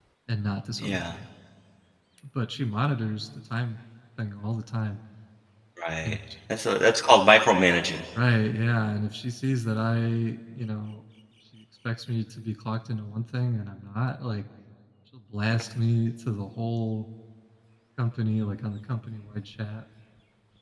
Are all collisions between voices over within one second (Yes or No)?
Yes